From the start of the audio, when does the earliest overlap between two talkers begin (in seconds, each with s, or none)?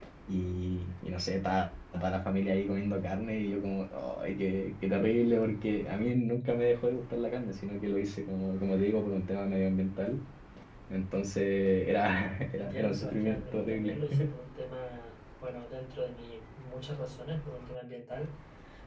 12.6 s